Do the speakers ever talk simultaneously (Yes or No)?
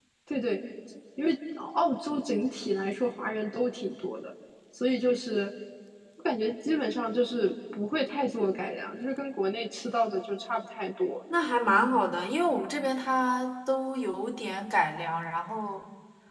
No